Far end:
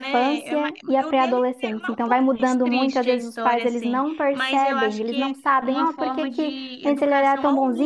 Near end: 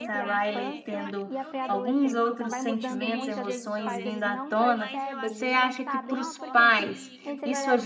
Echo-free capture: No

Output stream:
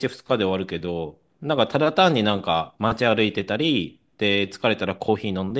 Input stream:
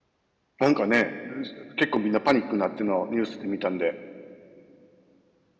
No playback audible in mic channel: Yes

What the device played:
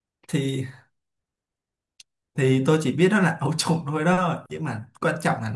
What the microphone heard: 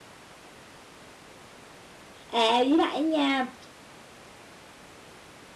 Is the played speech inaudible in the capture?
Yes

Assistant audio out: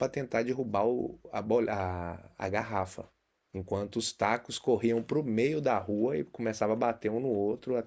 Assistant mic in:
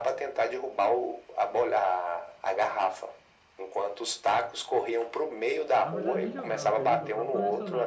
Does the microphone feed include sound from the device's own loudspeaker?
Yes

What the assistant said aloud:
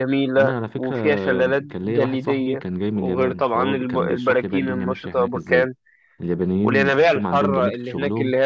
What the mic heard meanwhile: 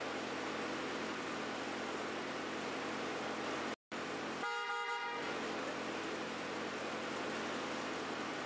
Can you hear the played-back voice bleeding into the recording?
No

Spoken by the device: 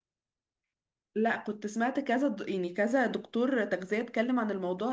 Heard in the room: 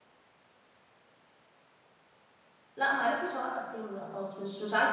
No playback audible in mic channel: Yes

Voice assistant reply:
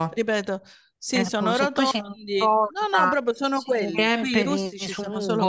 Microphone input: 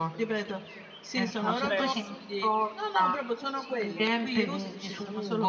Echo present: Yes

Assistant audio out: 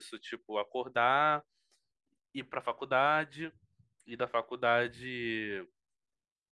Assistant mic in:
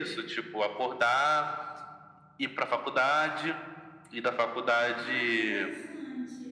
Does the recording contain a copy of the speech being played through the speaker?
Yes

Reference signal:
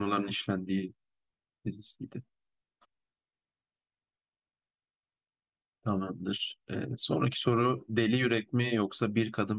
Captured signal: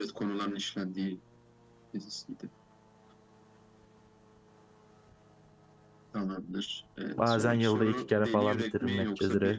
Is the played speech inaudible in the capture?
No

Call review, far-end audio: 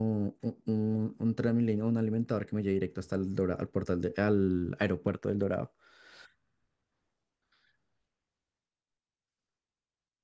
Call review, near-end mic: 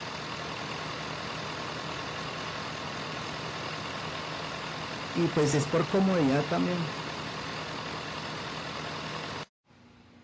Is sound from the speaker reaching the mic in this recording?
No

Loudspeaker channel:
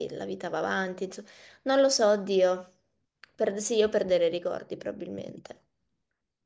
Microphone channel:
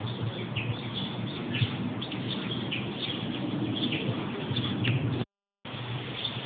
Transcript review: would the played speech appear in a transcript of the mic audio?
No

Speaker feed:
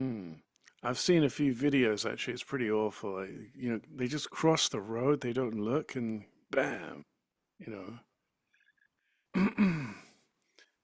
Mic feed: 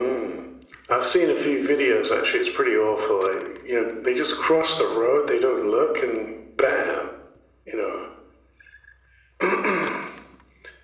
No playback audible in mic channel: No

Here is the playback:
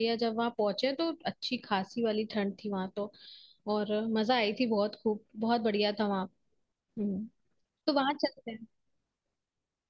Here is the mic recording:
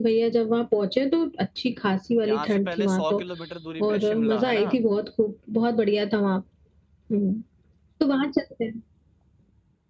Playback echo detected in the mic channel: Yes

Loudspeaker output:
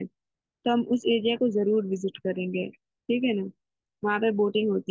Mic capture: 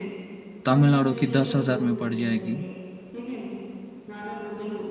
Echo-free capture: No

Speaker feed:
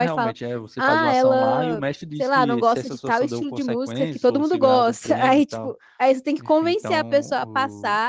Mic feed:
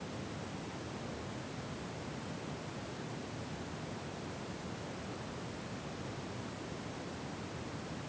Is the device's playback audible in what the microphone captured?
No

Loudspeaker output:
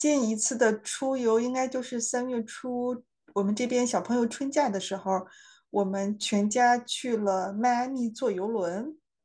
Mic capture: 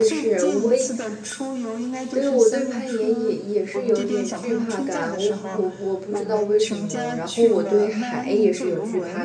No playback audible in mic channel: No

